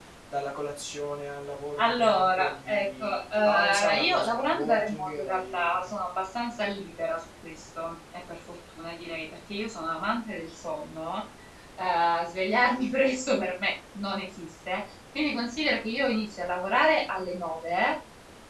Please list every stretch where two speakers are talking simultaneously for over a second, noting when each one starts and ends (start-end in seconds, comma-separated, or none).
1.8-5.9